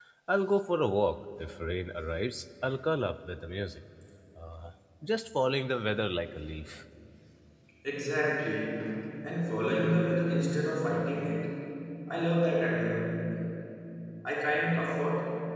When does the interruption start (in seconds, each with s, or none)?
none